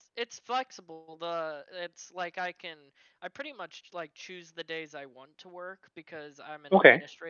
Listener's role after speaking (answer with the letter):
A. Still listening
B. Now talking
A